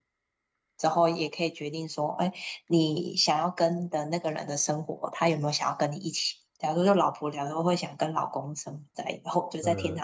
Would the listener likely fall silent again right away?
Yes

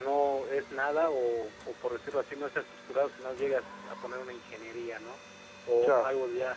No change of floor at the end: Yes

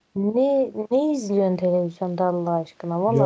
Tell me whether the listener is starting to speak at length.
No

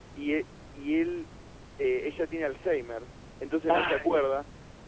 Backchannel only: Yes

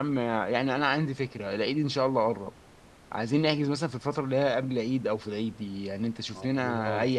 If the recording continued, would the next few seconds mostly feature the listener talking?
No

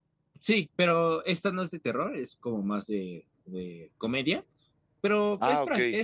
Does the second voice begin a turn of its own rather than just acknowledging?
No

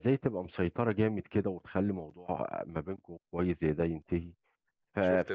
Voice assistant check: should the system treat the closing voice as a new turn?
No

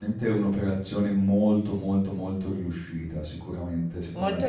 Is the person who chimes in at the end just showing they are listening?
Yes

